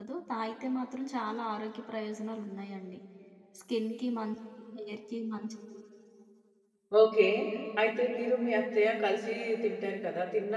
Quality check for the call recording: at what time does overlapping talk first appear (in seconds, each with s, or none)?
none